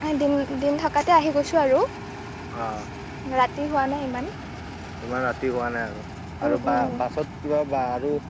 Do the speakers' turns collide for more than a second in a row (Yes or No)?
No